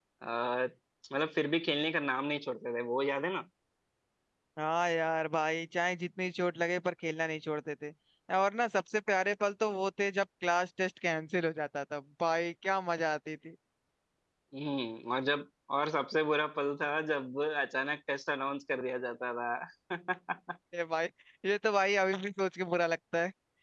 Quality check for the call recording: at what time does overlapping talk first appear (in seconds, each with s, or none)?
none